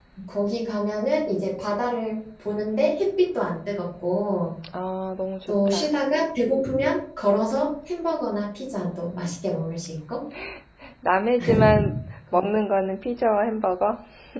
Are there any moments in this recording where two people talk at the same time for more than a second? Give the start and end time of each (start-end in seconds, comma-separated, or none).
none